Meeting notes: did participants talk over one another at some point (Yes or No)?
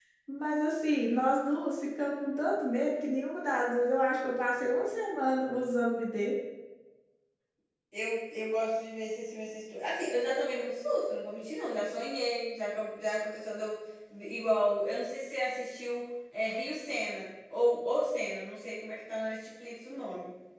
No